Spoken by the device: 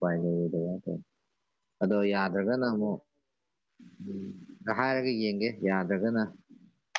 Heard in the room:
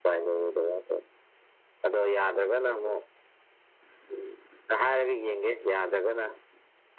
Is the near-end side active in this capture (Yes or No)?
No